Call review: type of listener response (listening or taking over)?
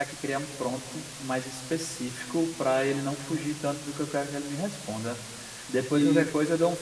listening